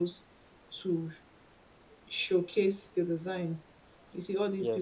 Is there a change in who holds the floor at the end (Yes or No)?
No